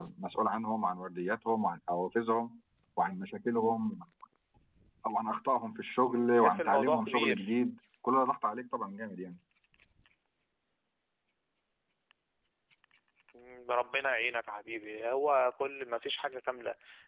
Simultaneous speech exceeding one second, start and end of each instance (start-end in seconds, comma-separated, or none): 6.1-7.5